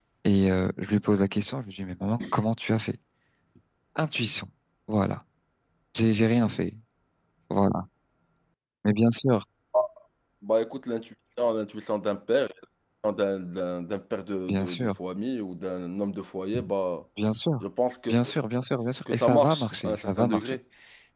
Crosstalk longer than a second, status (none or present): present